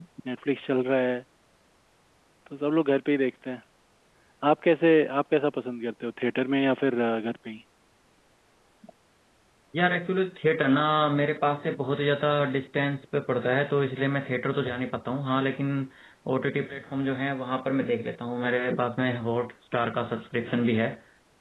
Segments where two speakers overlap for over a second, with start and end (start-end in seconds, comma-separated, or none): none